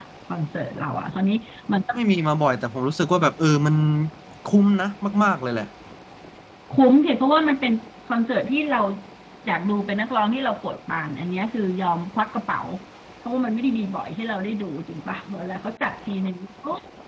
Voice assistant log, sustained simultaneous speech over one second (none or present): none